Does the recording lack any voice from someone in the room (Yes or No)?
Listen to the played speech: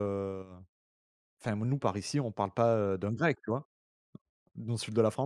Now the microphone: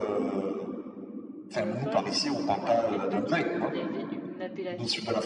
No